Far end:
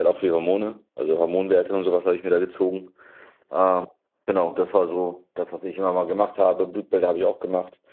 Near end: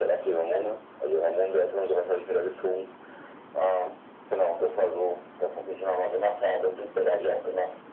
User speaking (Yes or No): No